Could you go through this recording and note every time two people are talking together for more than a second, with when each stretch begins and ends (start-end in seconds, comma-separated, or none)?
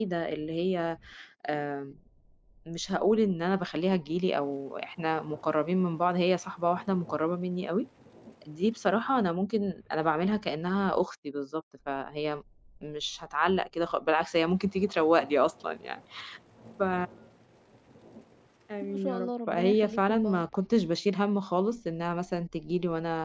18.8-20.4